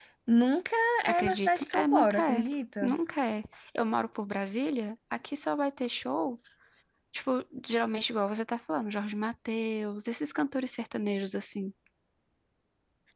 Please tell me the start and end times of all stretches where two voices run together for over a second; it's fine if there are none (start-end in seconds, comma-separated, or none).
1.1-2.4